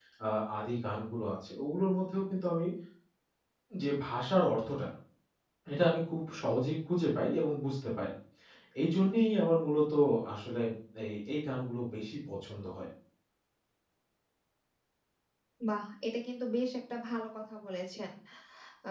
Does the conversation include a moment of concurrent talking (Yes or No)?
No